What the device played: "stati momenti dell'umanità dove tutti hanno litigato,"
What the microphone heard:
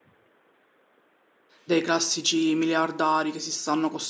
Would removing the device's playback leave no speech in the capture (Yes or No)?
No